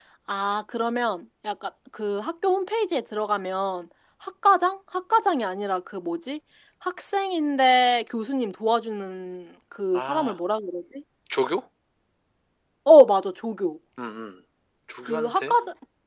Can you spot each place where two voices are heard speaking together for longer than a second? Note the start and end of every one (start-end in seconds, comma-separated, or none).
none